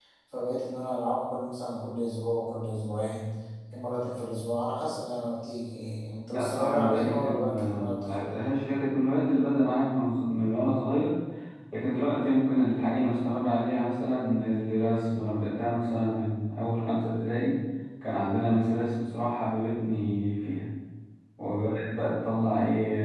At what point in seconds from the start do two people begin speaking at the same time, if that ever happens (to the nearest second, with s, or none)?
6 s